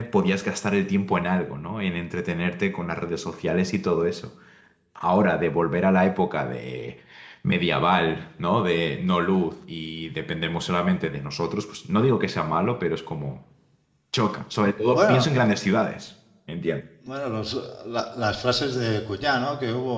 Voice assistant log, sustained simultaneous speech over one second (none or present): none